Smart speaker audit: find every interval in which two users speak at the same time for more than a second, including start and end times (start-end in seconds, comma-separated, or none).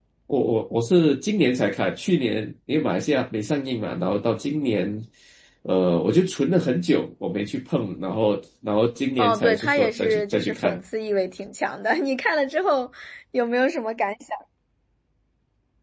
9.2-10.8